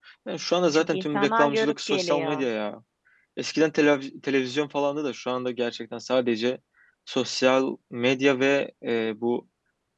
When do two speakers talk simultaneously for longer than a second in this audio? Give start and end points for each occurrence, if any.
0.7-2.4

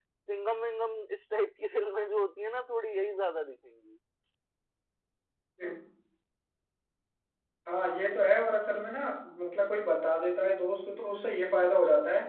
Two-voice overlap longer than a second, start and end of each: none

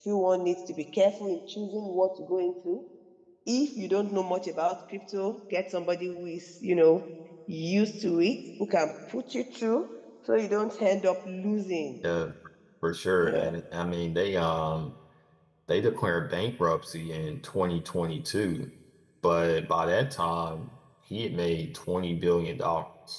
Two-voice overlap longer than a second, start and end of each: none

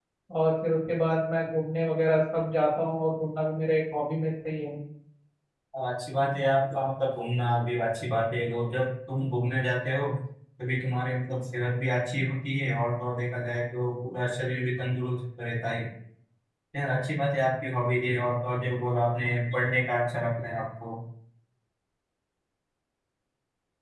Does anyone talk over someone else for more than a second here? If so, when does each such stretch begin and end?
none

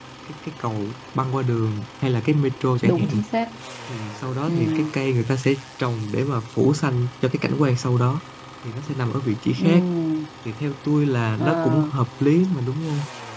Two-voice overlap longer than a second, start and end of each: none

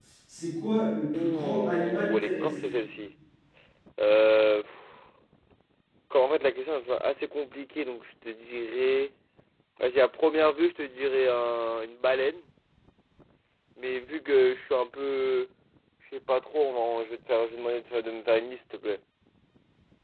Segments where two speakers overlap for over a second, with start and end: 1.1-2.5

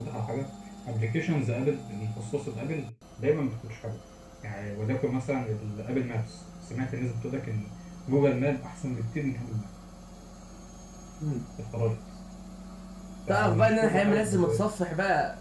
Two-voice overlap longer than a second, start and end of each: 13.3-14.6

